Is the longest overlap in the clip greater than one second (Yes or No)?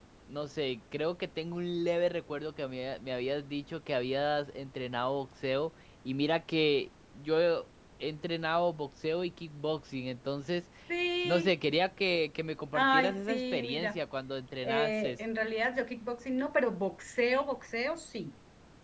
Yes